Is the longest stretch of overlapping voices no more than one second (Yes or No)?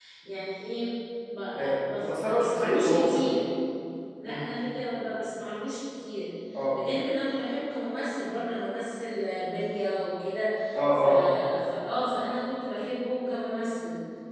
No